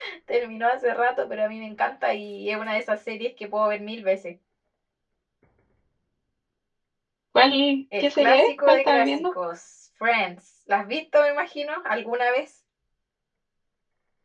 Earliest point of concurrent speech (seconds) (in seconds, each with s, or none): 8.0 s